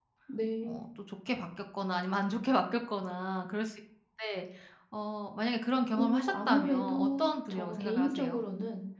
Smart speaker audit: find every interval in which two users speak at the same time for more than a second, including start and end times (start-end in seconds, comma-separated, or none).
5.9-8.4